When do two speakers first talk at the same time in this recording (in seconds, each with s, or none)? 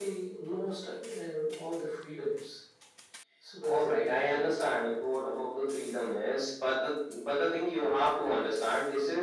3.6 s